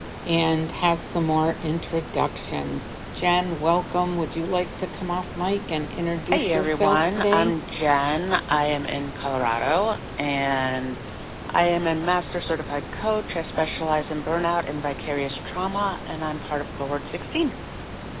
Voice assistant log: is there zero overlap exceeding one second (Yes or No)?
No